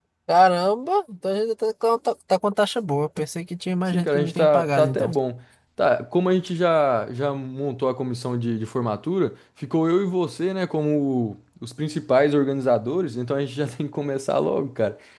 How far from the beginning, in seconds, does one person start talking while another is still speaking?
3.9 s

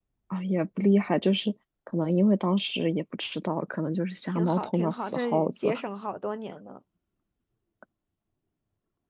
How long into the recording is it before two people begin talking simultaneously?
4.3 s

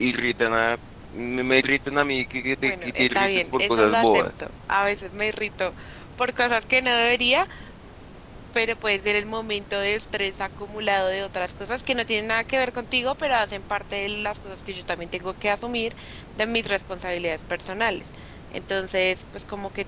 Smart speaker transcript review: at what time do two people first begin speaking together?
2.6 s

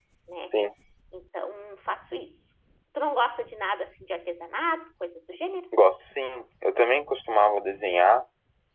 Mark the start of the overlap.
none

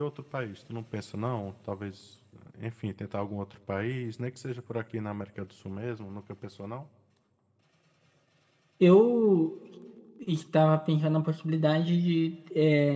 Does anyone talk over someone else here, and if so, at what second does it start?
none

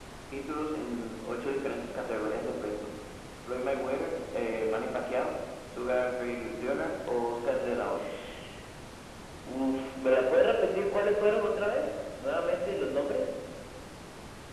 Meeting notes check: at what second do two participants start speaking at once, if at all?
none

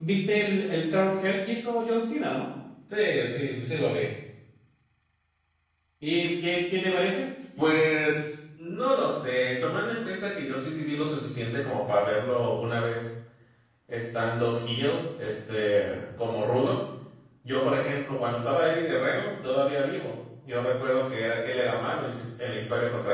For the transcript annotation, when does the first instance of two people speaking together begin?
none

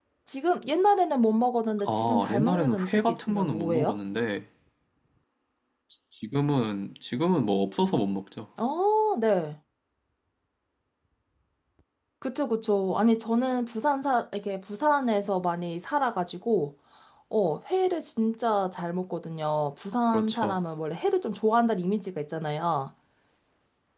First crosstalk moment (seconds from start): 1.8 s

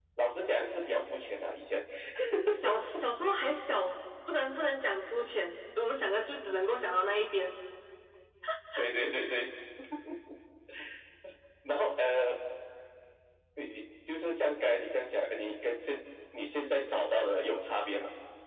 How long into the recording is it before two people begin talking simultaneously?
none

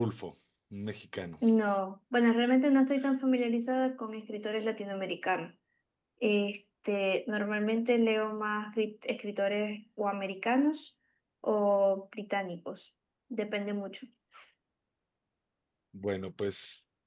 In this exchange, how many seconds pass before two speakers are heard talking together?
none

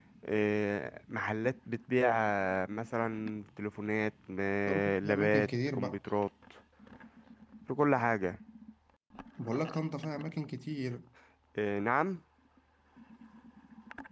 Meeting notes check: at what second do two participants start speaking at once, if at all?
4.7 s

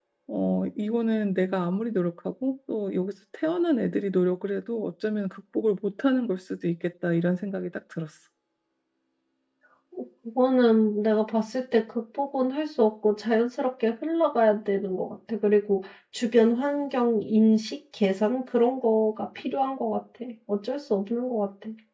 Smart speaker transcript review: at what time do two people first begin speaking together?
none

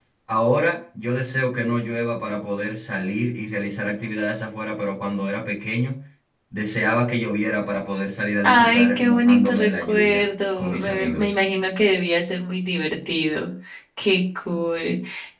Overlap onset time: 8.4 s

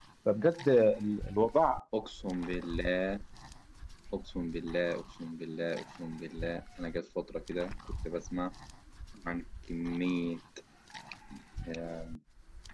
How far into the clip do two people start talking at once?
none

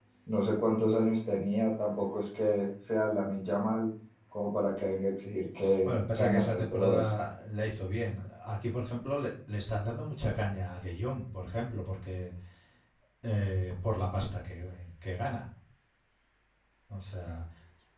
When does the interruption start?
5.8 s

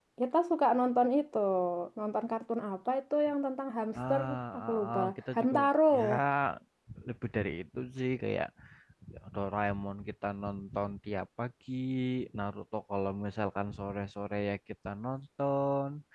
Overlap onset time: 4.0 s

